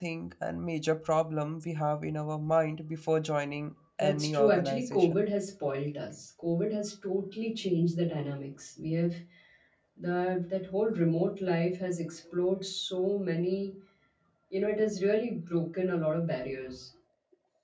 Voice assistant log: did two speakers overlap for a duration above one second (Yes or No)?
Yes